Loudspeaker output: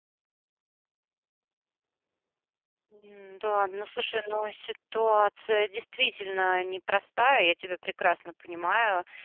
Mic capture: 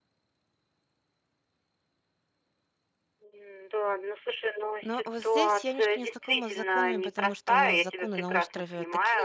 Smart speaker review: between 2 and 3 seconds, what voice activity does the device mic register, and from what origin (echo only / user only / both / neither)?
neither